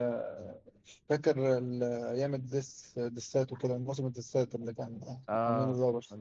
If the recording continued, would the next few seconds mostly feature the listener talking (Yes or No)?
Yes